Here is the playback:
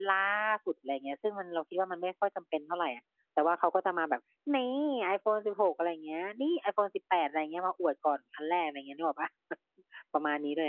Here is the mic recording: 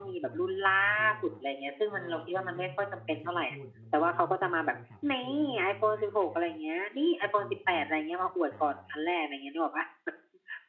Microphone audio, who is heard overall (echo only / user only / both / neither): both